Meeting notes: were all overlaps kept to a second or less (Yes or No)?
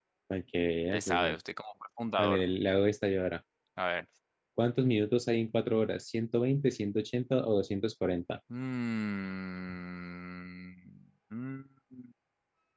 Yes